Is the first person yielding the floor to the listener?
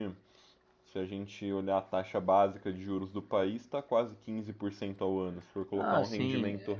Yes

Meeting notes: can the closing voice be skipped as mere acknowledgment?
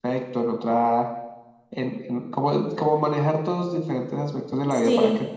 Yes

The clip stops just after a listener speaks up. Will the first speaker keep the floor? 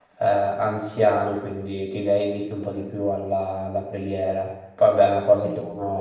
Yes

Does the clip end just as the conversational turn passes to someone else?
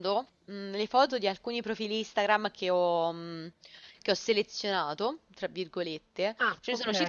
No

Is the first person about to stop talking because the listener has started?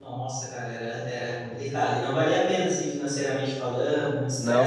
No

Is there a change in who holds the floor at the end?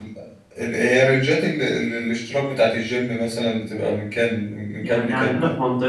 Yes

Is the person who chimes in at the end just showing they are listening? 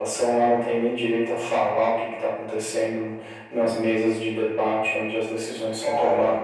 No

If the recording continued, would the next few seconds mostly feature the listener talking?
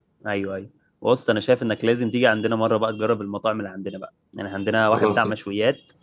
No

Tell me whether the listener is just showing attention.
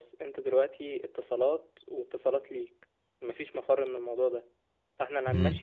Yes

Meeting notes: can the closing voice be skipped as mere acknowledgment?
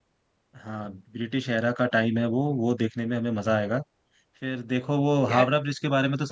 Yes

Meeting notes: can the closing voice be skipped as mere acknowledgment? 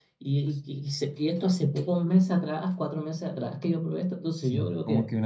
No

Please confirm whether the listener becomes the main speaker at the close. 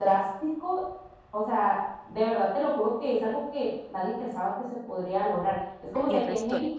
No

